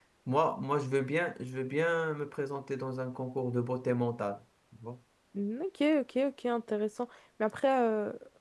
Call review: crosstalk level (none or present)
none